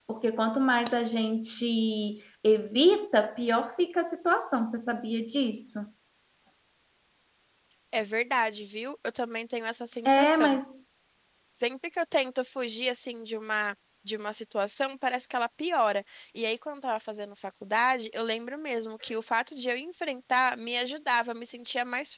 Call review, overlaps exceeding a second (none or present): none